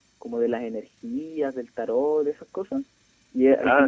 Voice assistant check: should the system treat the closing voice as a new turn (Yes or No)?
No